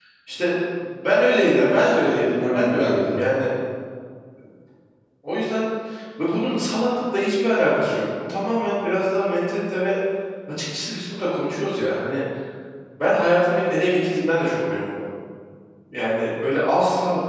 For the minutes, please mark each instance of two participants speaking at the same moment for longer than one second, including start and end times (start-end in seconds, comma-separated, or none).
1.6-3.3